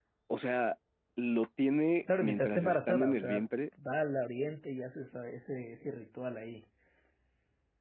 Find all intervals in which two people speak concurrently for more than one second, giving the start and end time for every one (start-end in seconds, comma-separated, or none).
2.2-3.5